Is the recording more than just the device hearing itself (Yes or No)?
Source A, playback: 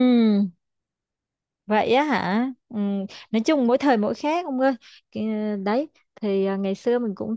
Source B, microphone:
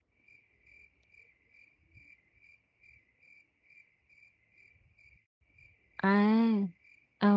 Yes